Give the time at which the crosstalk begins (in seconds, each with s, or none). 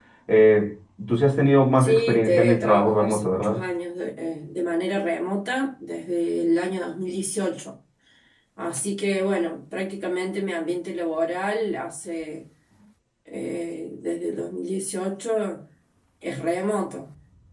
1.8 s